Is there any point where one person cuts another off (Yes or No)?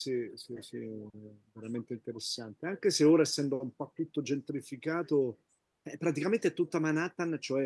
No